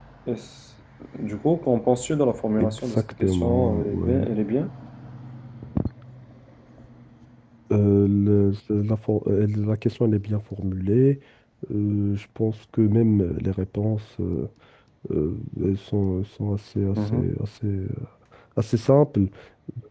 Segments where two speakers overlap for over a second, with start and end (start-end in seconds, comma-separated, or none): 2.6-4.3